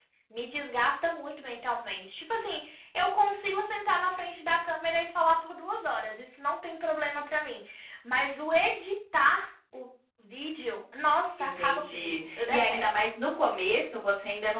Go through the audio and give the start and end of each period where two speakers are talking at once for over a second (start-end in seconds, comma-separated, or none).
11.4-13.0